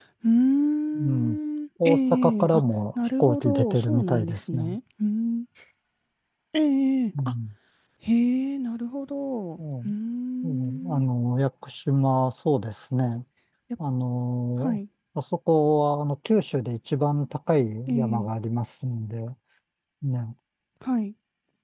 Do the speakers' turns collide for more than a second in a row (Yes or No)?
Yes